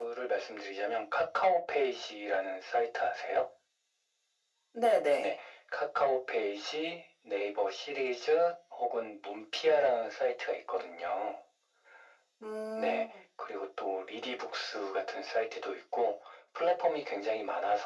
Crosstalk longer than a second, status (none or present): none